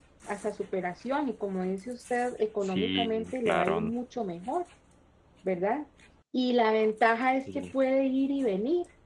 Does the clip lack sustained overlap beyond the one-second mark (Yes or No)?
No